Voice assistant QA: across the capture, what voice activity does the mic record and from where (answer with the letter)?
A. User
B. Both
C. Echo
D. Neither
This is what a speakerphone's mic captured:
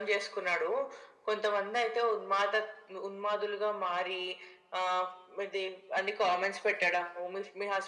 C